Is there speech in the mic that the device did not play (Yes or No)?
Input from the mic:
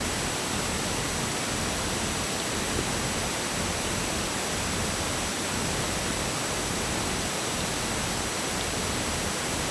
No